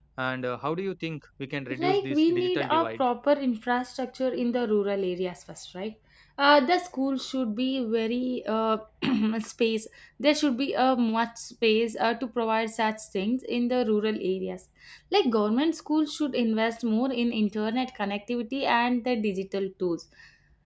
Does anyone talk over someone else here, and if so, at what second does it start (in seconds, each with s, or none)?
1.7 s